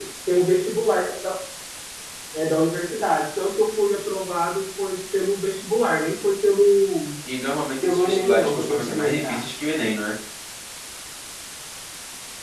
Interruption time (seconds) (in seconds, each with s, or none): 7.8 s